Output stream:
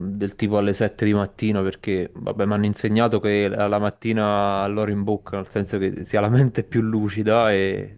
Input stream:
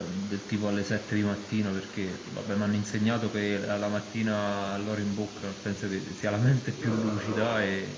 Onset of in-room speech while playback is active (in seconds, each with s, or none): 6.7 s